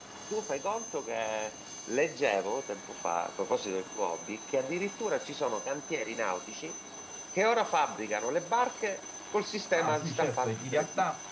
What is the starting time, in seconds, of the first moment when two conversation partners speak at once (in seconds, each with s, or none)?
9.7 s